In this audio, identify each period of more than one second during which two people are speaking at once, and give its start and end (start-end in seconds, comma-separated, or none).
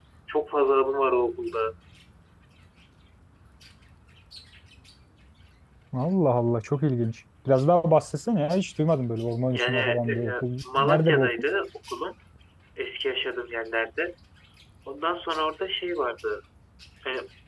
9.5-11.3